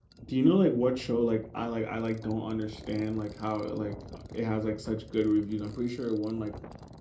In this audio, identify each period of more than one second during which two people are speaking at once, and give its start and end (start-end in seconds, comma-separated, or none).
none